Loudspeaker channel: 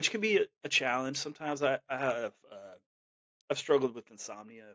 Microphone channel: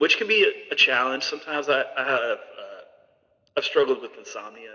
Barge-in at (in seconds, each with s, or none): none